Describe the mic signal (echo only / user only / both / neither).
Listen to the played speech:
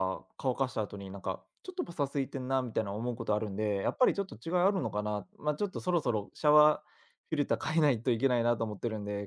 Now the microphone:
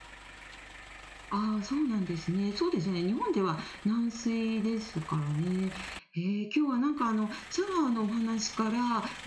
user only